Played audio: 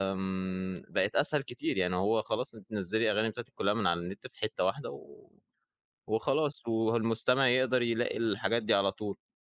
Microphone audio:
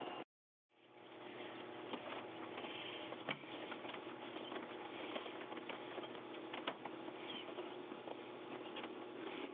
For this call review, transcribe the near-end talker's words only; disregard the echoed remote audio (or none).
none